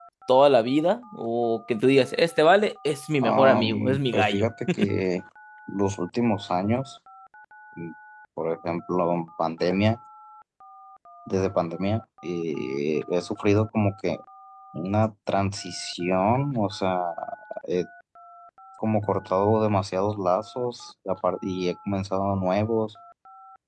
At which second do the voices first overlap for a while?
3 s

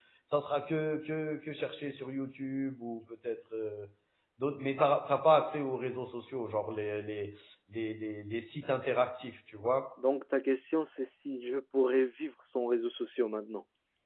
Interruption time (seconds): none

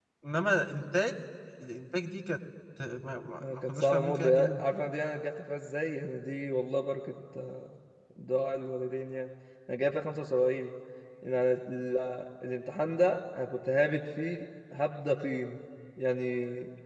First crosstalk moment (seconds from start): 3 s

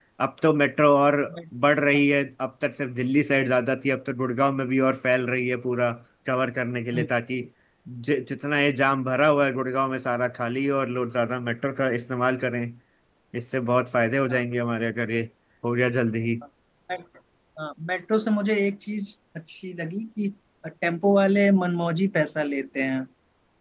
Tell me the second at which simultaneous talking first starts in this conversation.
none

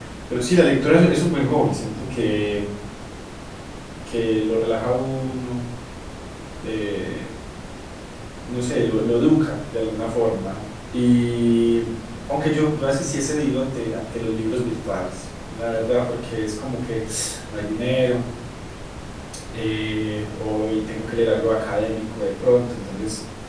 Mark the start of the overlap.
none

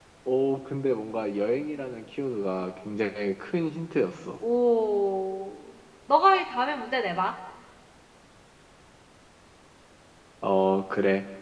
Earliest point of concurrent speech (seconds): none

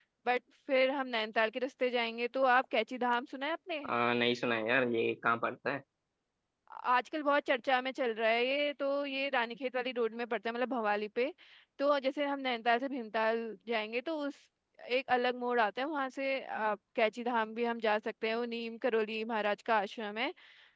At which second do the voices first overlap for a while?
none

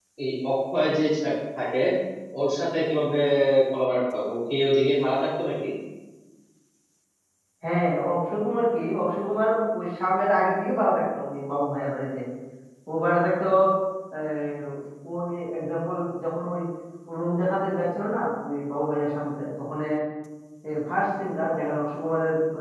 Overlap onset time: none

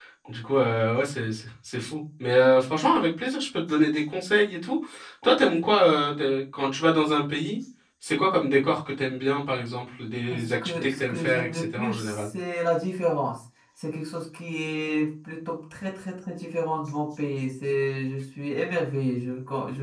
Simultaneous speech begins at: 10 s

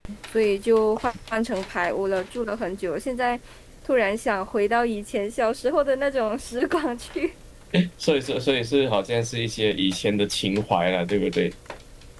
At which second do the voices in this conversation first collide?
none

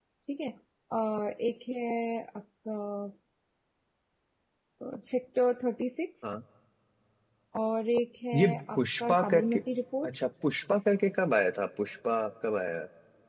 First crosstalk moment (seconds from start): 8 s

